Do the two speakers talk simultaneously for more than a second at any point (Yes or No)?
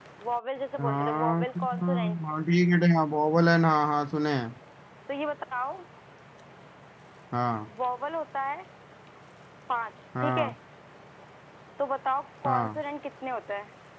Yes